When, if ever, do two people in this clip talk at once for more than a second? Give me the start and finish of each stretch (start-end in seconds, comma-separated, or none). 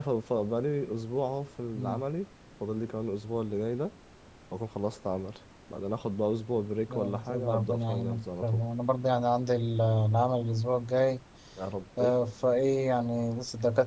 6.9-8.6